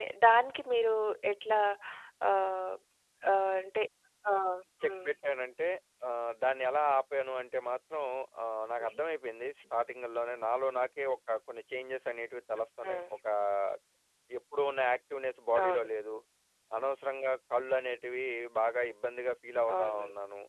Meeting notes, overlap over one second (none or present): none